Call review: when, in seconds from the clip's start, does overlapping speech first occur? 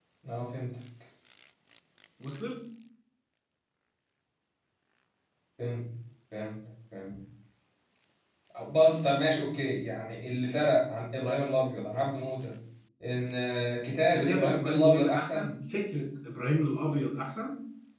14.1 s

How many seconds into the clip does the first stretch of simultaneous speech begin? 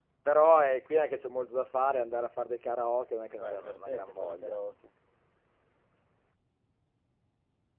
3.4 s

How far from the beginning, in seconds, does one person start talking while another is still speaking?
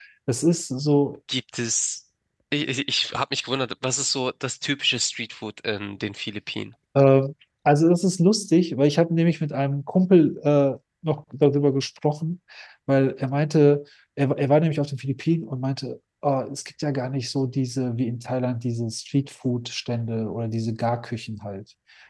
none

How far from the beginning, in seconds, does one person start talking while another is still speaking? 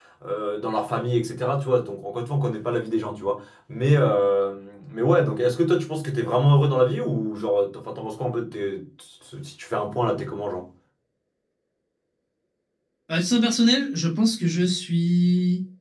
none

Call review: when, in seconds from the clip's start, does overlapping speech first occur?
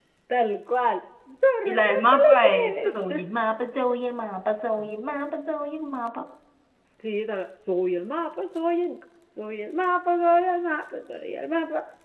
1.6 s

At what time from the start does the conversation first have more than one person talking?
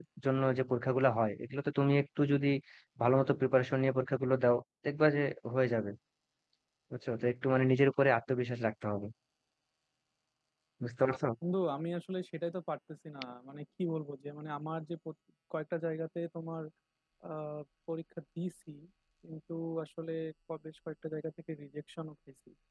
none

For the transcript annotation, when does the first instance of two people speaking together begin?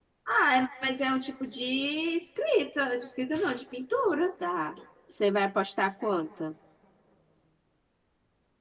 none

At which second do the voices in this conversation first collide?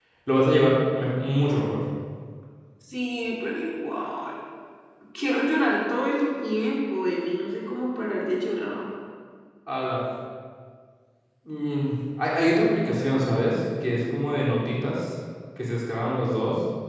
none

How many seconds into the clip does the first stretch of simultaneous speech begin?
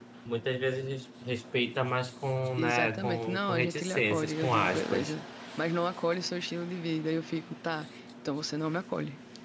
2.6 s

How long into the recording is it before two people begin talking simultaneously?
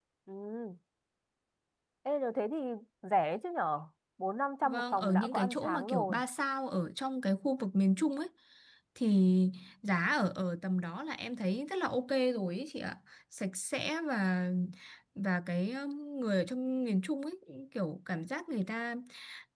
4.6 s

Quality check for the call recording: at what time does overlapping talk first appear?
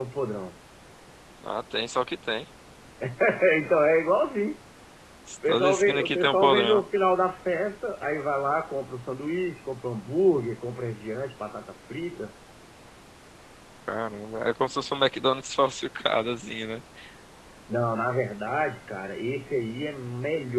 5.5 s

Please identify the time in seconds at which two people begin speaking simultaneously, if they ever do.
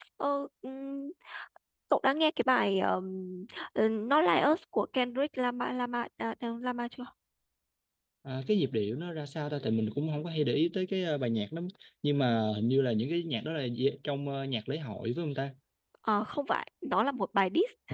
none

